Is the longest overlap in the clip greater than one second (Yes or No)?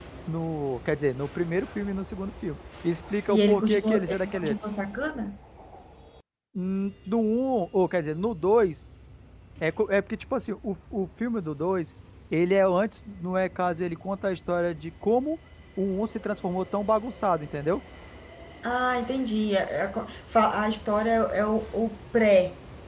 Yes